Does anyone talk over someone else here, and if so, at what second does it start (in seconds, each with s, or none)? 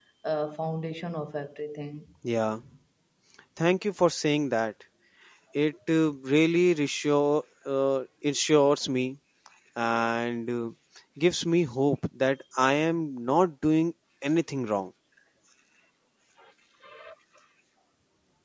none